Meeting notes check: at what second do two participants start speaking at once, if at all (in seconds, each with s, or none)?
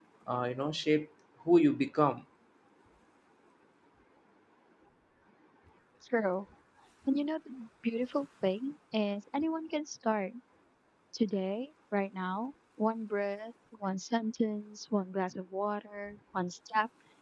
none